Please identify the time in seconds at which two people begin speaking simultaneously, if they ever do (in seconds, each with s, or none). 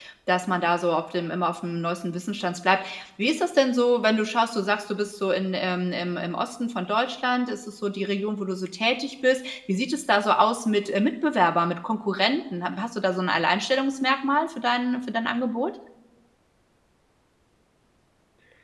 none